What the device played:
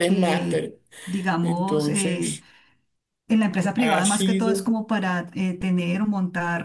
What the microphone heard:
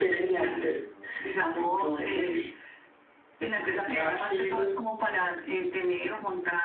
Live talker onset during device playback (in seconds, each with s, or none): none